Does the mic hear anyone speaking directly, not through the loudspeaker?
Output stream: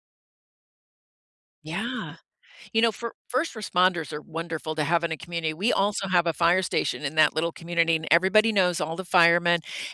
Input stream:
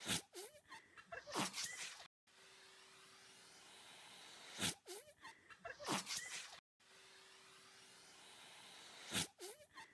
No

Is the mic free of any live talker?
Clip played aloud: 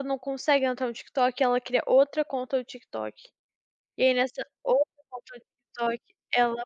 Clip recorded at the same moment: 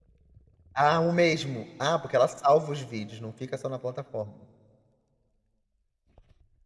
No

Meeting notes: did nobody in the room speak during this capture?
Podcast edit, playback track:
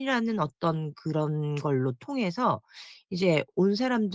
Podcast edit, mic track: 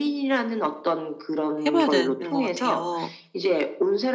No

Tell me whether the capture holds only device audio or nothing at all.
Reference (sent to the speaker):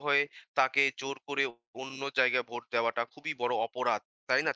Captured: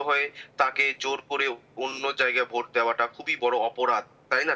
Yes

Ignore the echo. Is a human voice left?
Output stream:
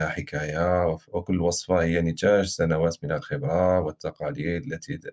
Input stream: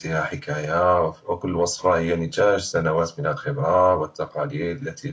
No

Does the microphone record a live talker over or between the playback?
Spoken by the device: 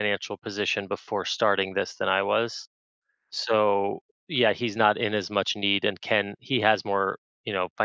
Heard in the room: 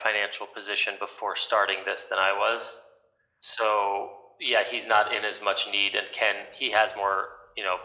No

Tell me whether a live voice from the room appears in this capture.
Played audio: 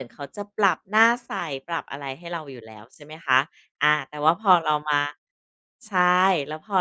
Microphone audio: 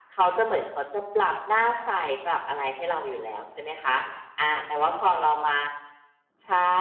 No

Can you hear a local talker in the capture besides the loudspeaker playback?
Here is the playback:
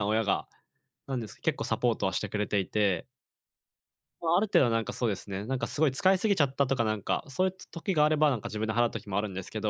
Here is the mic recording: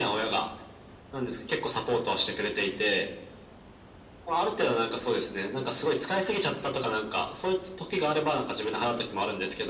No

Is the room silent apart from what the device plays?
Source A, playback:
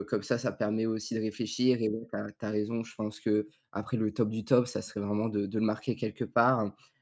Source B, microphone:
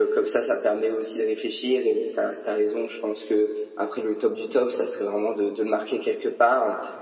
Yes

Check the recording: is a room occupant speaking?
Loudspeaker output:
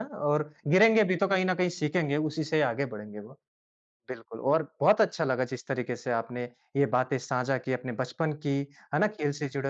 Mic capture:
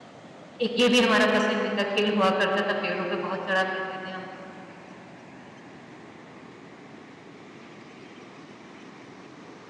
Yes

